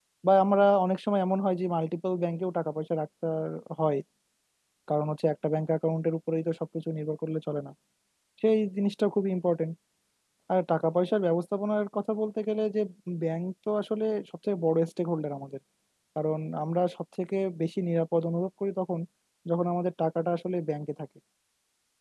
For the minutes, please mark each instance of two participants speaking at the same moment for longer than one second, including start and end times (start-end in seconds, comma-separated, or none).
none